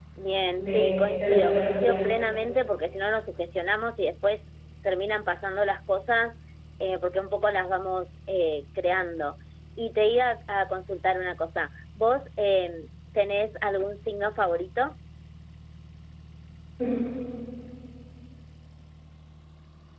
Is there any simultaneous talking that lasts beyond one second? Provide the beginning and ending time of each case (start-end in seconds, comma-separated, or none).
0.6-2.0